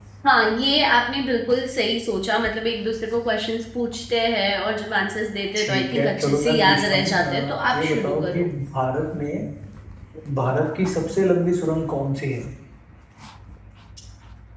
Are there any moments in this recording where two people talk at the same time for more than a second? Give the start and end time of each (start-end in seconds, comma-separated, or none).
5.6-8.5